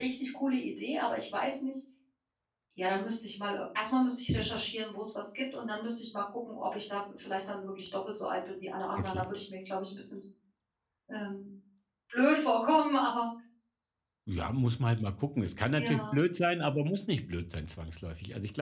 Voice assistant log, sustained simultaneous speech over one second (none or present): none